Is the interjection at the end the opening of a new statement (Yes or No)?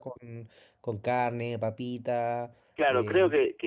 Yes